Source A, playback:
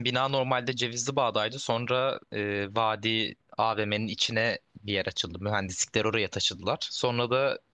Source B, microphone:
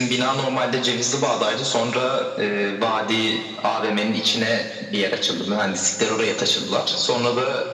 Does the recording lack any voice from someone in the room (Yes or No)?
Yes